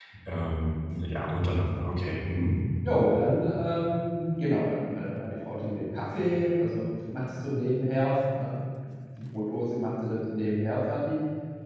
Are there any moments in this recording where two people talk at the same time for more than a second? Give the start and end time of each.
none

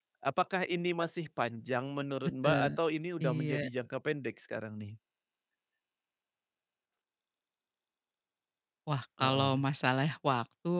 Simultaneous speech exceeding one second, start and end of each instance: none

